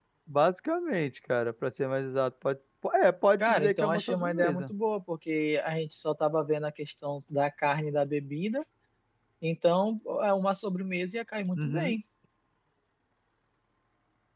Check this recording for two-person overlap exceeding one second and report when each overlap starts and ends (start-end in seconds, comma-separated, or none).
3.4-4.7